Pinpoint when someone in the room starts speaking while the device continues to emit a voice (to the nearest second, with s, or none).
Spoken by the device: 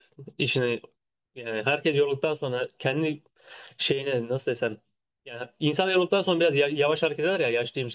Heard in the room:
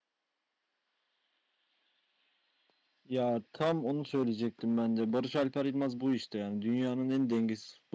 3 s